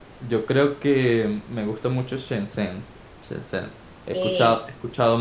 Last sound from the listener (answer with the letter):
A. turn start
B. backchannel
B